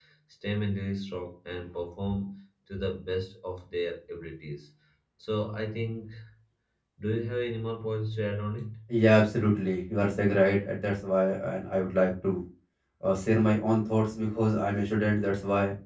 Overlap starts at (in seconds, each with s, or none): none